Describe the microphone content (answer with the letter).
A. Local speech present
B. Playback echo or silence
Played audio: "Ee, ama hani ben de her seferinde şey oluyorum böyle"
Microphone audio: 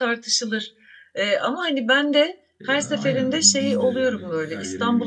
A